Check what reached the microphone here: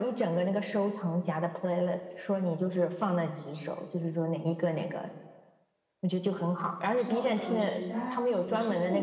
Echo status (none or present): present